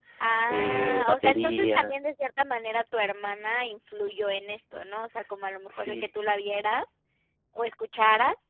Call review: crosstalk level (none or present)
present